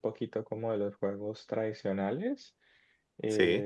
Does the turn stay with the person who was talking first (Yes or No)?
Yes